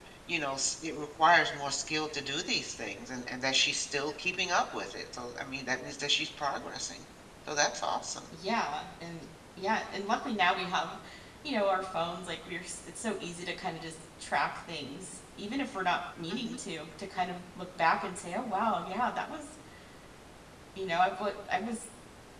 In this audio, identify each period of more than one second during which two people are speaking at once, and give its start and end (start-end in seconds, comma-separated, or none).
none